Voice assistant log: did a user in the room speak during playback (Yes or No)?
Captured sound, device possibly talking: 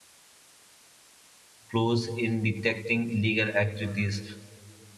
Yes